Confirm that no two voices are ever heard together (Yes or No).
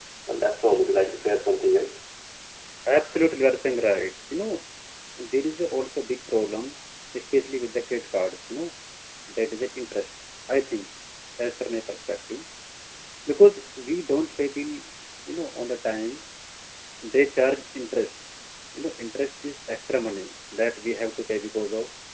Yes